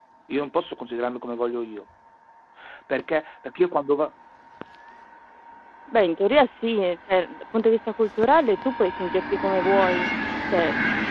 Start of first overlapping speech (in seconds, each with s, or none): none